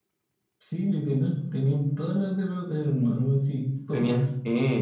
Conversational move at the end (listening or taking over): taking over